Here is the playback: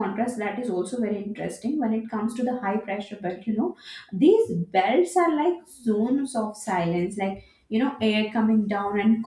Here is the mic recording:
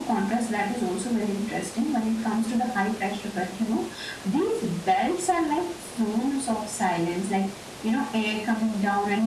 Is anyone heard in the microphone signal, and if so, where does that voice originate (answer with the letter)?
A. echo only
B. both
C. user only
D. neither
A